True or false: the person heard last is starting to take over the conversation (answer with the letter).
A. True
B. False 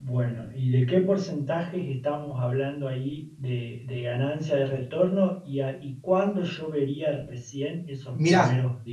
A